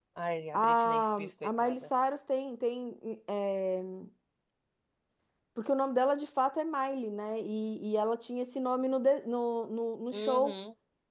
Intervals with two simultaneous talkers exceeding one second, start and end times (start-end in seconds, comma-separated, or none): 0.5-1.7